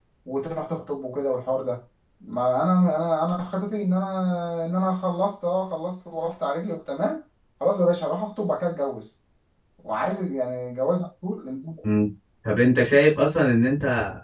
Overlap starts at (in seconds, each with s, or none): none